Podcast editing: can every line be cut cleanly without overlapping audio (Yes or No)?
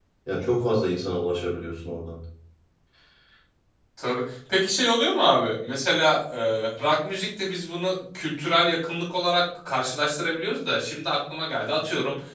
Yes